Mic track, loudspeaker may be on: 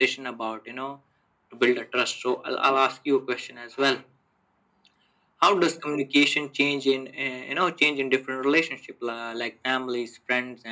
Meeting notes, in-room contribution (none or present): none